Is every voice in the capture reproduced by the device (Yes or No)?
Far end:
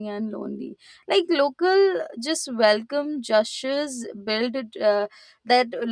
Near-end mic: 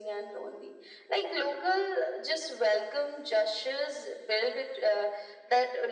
Yes